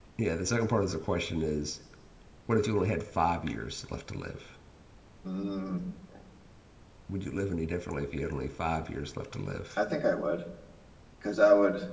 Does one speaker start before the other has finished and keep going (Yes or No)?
No